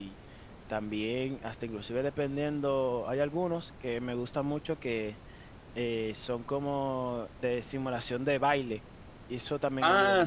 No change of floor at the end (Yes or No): No